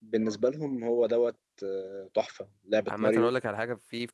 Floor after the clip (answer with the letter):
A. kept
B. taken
B